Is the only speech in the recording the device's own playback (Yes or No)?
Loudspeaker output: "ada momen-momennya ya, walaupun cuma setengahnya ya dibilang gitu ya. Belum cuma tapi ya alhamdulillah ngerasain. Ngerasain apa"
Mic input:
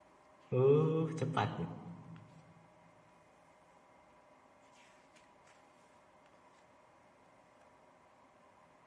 No